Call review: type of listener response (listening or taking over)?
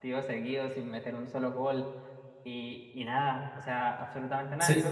taking over